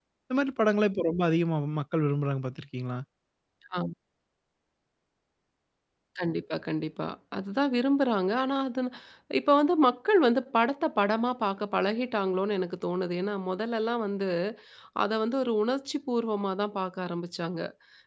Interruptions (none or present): none